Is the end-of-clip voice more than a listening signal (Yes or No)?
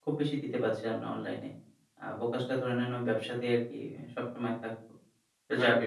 No